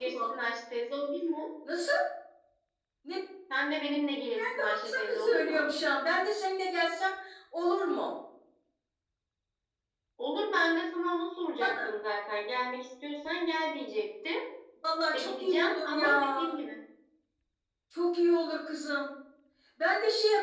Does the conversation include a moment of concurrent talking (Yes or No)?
Yes